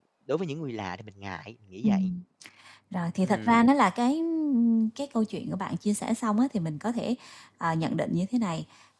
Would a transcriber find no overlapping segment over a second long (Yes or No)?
Yes